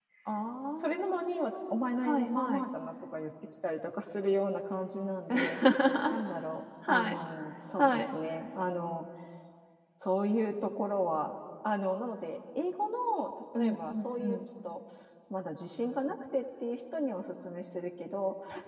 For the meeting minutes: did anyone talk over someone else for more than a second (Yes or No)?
Yes